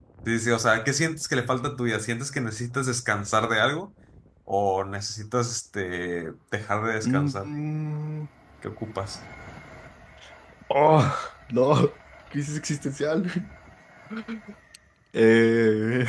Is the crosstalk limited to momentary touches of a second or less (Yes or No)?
Yes